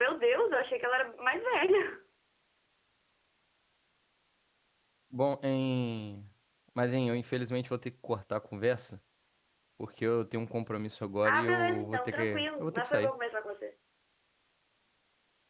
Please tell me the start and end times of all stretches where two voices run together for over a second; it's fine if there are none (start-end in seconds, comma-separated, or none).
11.2-13.1